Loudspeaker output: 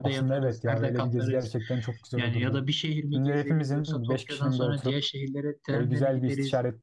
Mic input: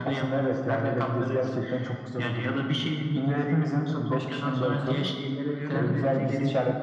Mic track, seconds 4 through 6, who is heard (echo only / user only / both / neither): both